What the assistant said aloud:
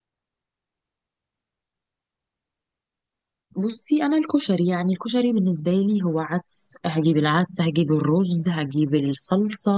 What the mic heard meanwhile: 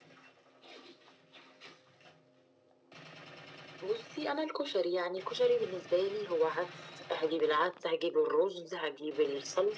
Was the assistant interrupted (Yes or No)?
No